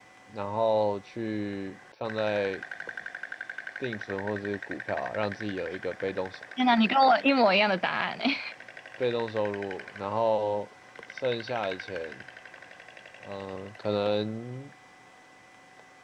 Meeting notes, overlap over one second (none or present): none